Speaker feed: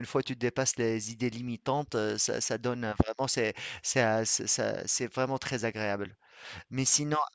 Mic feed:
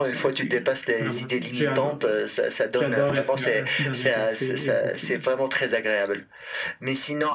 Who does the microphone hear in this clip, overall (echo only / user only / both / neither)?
both